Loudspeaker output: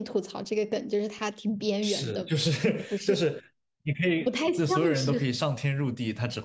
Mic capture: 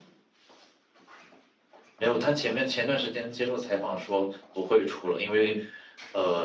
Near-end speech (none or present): present